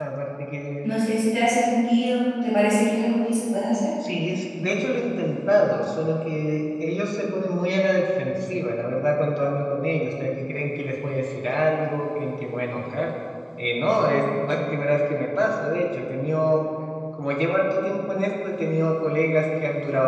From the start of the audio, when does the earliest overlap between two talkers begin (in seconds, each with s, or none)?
none